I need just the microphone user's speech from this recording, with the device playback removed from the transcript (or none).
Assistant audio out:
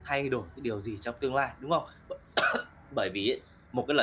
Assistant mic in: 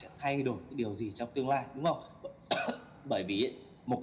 none